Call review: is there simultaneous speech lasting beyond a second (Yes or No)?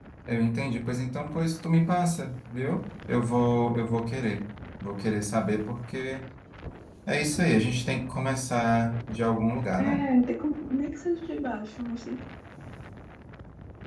No